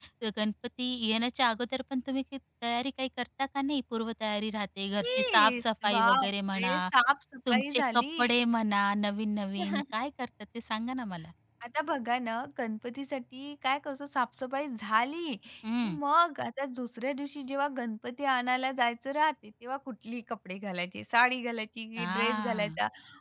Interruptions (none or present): present